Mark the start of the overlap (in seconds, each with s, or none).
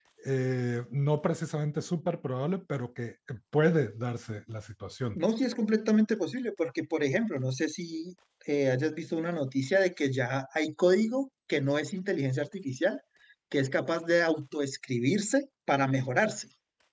none